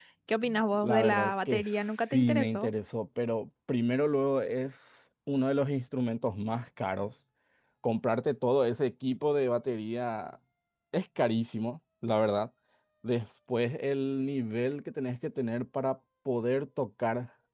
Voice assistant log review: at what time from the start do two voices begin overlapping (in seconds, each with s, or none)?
0.7 s